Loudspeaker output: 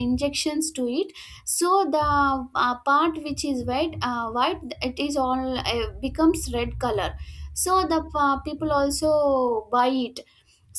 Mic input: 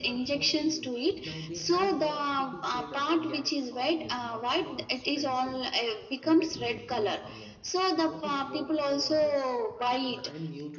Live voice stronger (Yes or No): No